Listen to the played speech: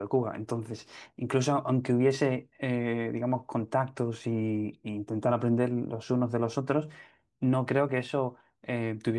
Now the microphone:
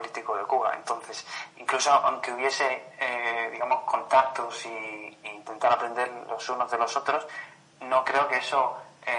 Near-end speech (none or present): none